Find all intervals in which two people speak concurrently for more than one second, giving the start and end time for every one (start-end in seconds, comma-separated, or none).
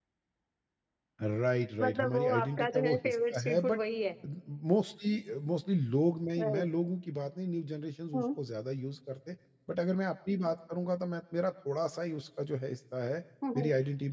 1.8-3.8